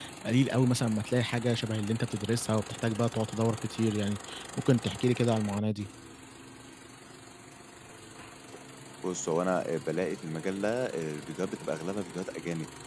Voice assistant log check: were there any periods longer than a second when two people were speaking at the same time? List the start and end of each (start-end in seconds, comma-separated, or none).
none